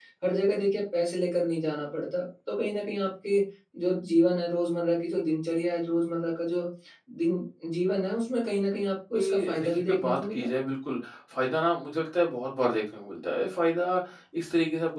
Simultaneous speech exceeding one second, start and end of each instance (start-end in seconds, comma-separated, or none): 9.2-10.5